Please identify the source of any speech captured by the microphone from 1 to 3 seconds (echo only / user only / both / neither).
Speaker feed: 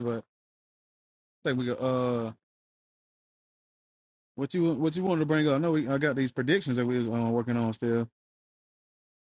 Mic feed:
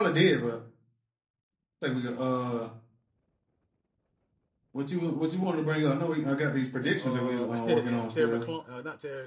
echo only